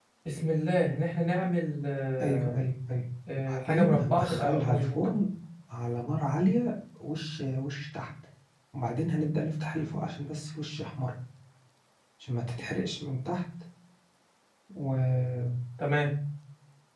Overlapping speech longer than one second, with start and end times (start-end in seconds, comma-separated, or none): 3.4-5.1